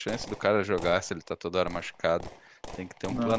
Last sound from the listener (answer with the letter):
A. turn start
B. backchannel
B